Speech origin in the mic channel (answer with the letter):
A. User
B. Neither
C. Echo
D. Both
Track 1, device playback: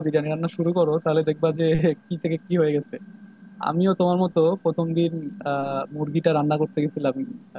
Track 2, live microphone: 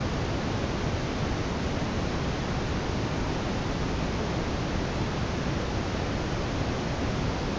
B